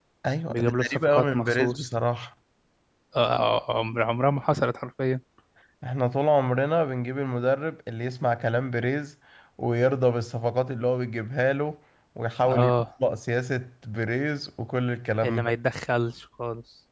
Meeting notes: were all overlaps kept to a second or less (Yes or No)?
No